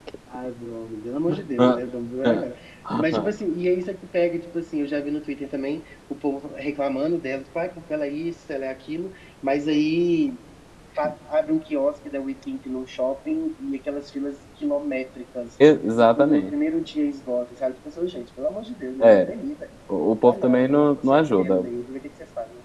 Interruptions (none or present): present